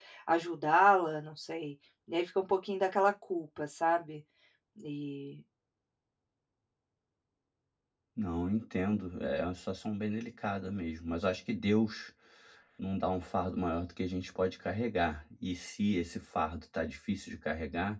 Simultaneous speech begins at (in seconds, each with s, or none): none